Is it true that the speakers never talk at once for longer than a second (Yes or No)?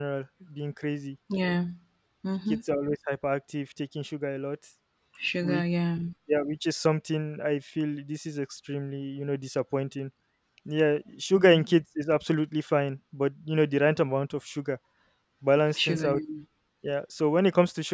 Yes